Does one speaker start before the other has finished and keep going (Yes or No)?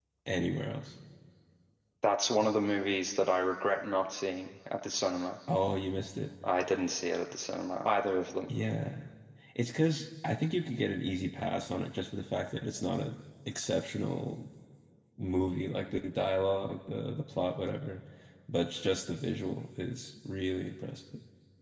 No